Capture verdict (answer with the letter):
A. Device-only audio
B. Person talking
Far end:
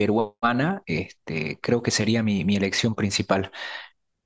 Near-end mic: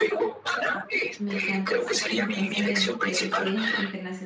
B